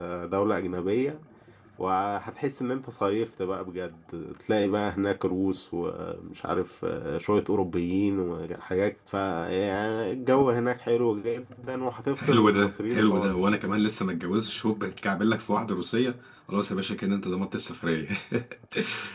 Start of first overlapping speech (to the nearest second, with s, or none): 12 s